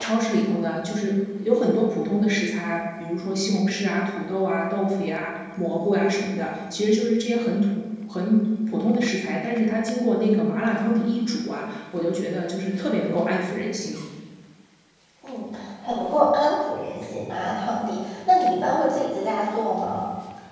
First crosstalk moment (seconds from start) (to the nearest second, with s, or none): none